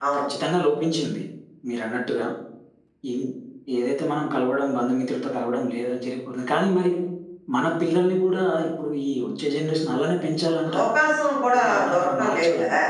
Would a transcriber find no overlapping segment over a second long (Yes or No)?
No